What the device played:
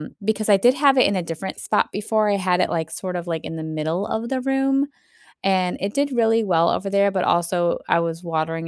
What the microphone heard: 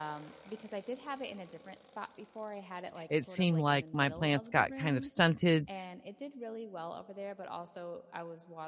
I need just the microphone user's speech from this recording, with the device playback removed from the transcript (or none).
it seemed like my plants got kind of stunted